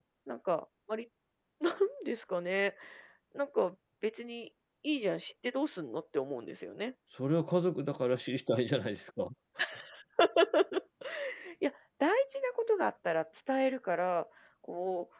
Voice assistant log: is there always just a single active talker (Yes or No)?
Yes